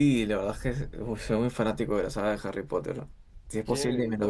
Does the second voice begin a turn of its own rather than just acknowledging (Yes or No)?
Yes